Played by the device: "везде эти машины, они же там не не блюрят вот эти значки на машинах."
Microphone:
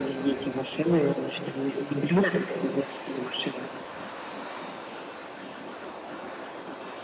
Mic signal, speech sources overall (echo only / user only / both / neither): echo only